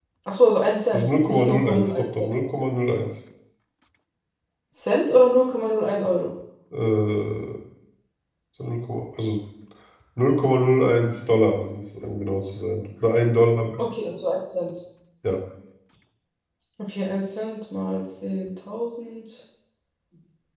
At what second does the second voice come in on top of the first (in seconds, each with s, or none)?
0.9 s